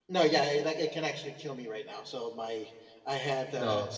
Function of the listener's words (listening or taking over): listening